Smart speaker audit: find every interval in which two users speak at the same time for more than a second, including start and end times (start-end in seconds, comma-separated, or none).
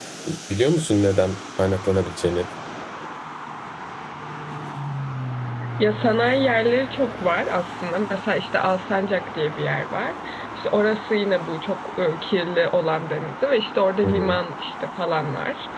none